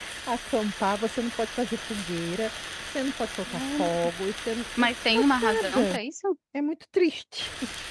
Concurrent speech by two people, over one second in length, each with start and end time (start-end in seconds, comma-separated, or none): 4.8-6.0